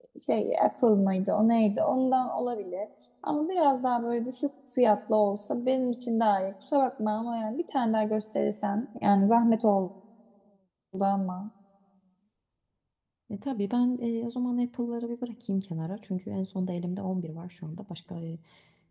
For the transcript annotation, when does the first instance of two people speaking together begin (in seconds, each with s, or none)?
none